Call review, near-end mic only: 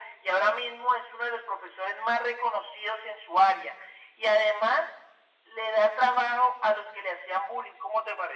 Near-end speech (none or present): none